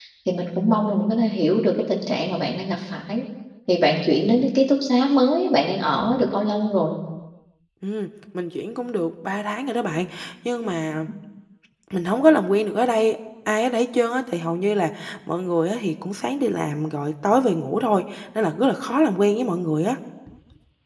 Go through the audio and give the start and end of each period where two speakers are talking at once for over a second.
none

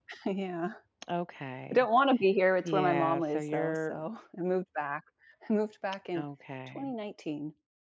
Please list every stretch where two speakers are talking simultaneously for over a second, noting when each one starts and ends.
2.6-4.0

